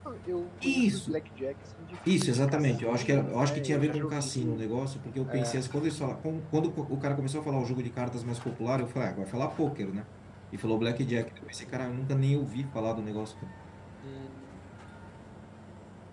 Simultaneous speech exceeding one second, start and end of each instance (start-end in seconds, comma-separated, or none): 2.1-4.5